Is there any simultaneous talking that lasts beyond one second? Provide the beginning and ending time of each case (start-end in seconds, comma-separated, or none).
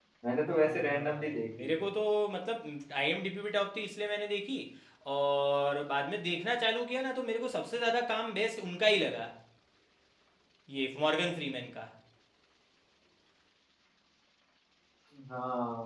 0.6-1.8